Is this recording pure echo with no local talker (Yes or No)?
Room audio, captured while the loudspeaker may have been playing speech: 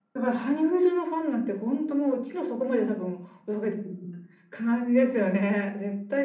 Yes